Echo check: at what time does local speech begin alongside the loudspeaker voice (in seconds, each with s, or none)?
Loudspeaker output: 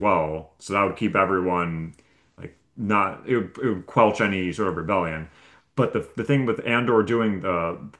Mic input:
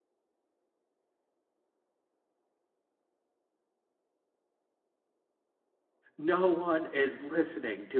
6.2 s